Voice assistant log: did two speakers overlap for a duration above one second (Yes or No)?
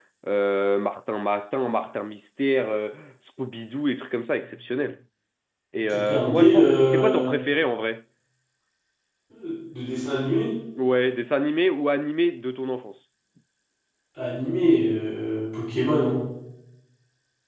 Yes